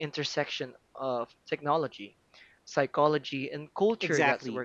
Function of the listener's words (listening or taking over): taking over